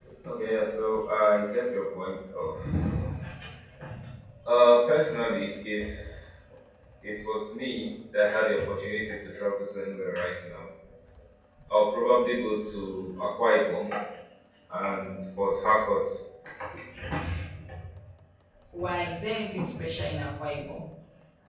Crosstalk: none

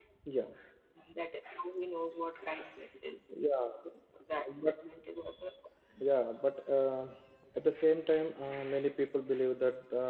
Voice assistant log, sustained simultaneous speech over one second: none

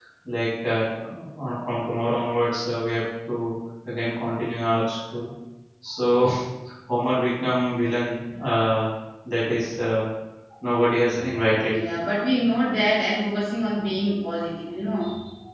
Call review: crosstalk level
none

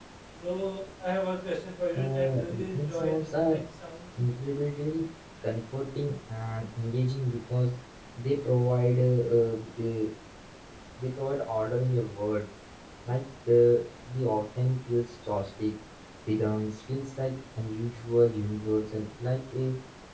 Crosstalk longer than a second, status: present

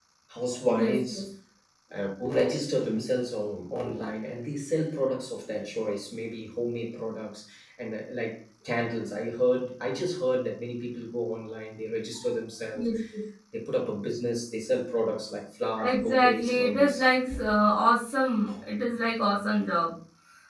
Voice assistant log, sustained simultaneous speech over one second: present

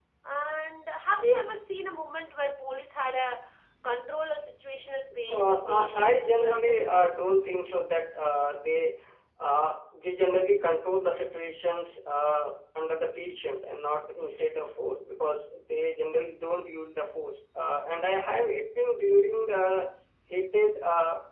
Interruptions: present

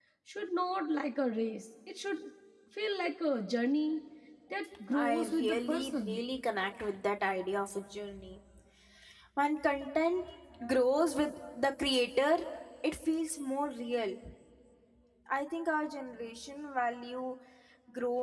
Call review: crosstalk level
present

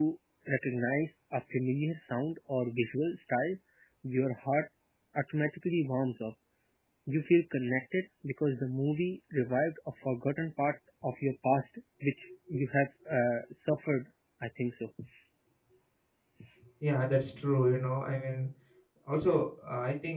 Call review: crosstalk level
none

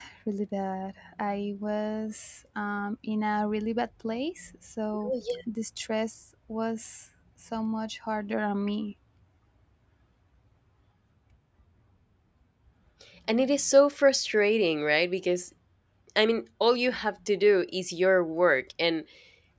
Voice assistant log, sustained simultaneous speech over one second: none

